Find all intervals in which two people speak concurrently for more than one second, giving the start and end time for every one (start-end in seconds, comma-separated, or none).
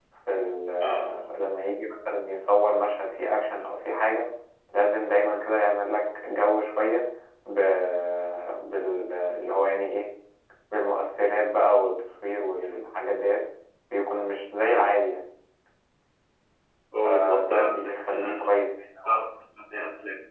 17.0-18.3